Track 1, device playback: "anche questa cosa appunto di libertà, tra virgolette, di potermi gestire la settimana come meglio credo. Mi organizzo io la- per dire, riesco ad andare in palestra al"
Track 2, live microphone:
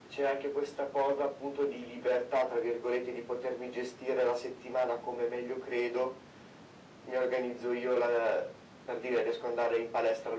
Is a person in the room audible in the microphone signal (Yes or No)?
No